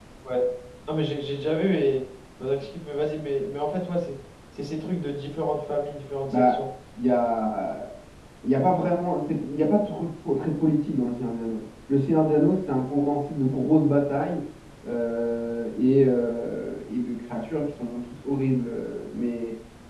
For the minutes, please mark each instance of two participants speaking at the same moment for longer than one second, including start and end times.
none

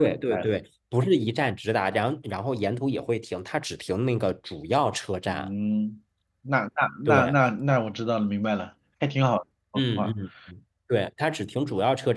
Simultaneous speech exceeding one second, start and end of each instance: none

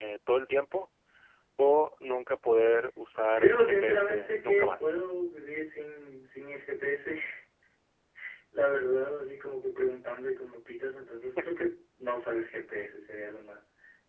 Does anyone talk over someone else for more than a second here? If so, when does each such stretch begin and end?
3.4-4.9

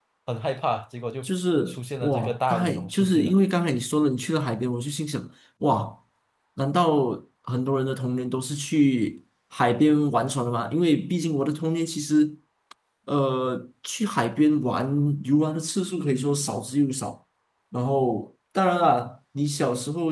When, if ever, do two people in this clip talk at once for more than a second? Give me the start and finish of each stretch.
1.7-3.3

